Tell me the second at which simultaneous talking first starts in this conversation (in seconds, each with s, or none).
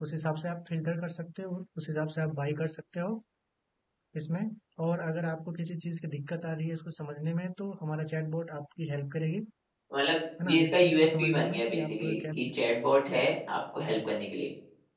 10.4 s